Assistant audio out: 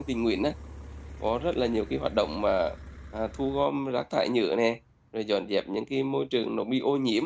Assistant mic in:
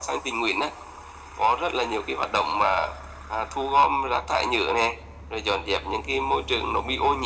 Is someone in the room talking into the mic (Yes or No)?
No